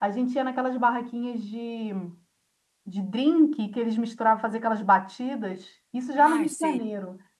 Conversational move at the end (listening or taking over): listening